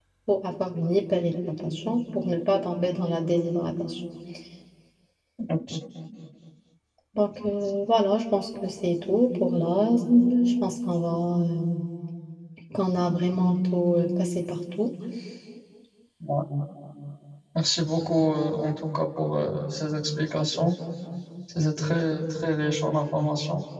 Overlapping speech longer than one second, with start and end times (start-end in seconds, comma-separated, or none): none